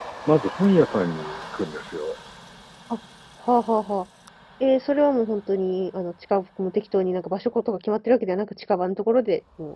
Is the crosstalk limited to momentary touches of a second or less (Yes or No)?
Yes